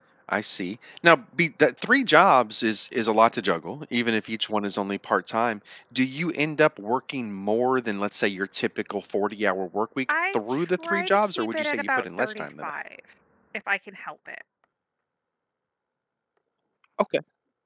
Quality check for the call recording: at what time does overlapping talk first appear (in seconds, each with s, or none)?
10.1 s